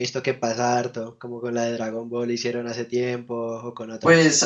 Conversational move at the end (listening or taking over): taking over